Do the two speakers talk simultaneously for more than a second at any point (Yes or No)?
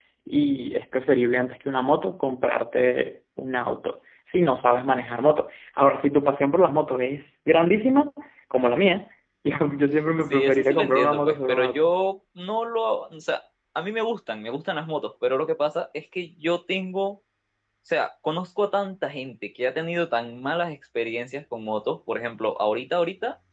Yes